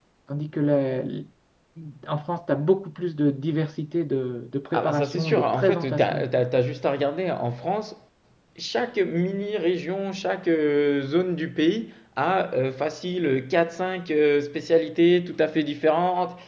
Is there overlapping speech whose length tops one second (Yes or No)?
Yes